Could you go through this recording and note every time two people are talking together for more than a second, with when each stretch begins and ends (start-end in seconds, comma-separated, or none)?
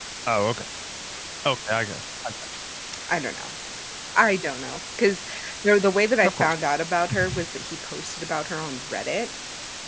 none